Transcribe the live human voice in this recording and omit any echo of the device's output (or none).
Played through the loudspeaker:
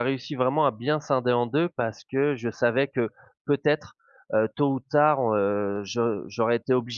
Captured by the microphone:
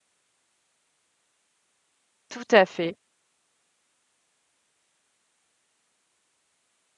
Tout à fait.